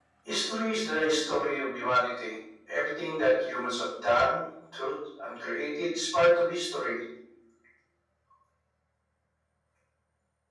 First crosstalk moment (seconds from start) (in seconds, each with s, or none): none